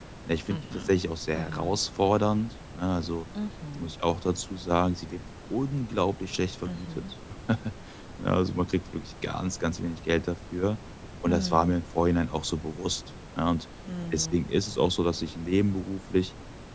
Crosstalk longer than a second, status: none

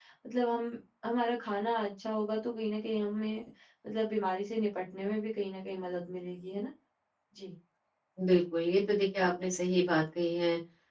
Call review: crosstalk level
none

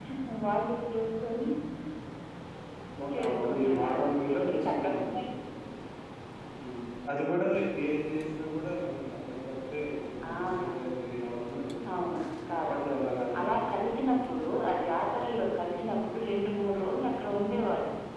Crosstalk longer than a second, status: present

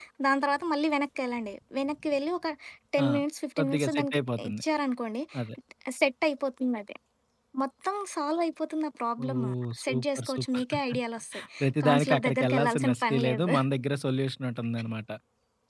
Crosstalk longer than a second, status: present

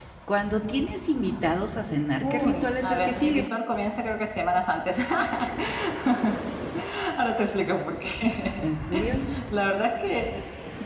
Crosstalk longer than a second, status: present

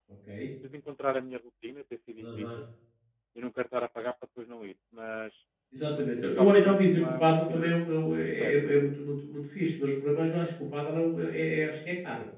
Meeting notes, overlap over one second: present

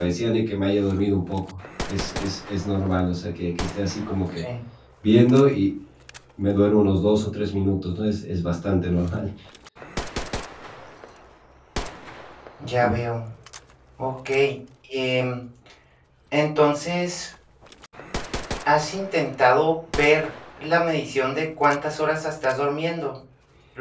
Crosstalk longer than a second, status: none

